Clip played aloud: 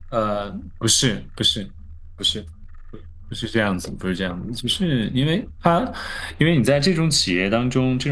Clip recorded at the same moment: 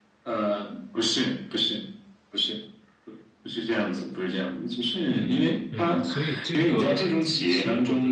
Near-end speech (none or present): present